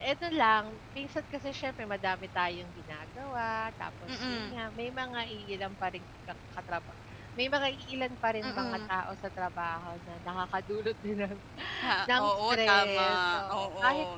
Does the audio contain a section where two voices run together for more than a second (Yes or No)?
Yes